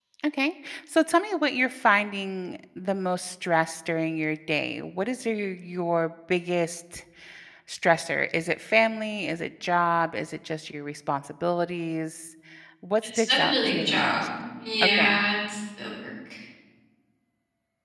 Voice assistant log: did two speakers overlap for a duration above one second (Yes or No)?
Yes